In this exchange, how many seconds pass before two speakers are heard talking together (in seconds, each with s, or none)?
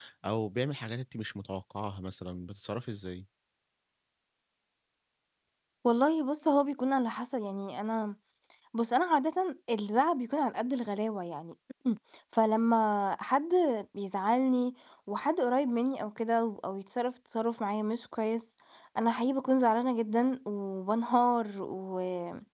none